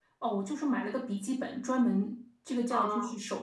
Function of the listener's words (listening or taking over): listening